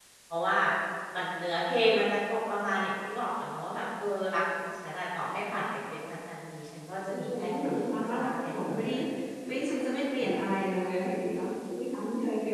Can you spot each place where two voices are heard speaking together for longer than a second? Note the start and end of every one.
7.1-8.9

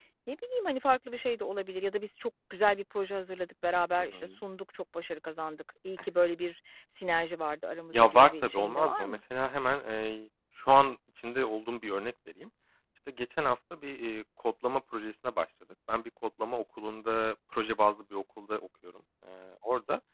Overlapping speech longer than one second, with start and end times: 7.9-9.2

